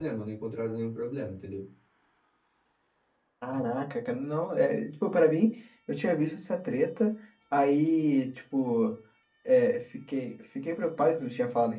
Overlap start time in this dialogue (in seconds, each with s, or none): none